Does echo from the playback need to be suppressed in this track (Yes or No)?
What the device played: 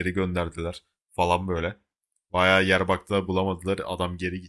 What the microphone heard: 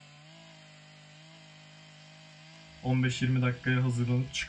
No